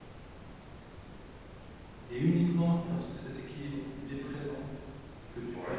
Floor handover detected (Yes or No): No